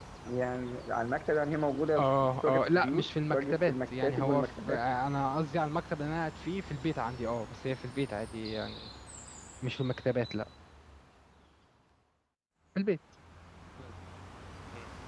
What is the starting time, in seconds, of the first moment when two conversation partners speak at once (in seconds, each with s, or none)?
2.0 s